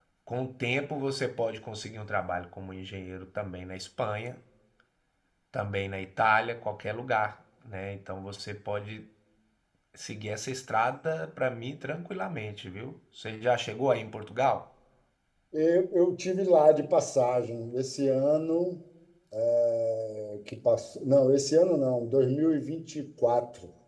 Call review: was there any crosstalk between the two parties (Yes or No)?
No